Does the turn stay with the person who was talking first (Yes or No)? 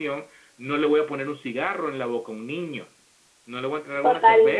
No